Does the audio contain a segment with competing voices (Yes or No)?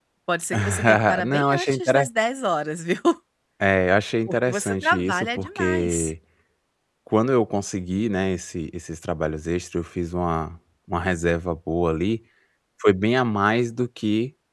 Yes